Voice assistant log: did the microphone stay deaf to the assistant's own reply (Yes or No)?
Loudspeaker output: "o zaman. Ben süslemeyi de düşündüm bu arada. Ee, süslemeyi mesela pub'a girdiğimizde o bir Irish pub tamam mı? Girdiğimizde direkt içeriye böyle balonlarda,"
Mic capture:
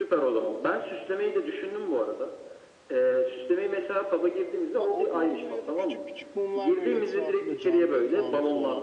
No